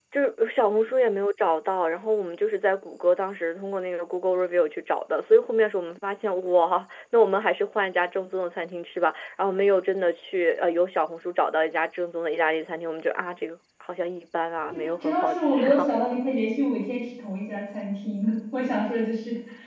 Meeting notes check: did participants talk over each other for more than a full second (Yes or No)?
Yes